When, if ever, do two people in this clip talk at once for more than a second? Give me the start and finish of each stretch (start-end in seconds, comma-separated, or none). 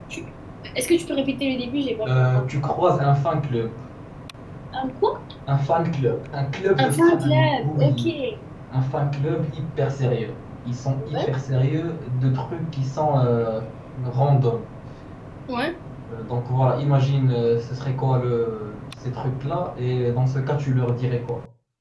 6.8-8.0